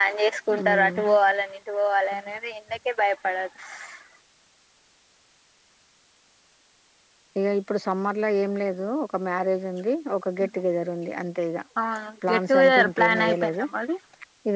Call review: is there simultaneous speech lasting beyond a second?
Yes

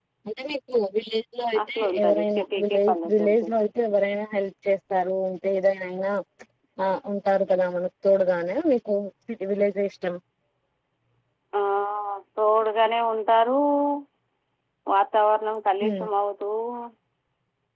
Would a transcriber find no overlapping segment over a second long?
No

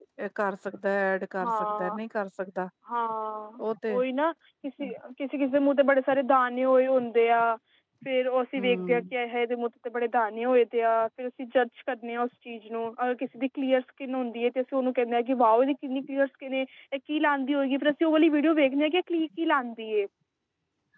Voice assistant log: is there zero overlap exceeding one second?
Yes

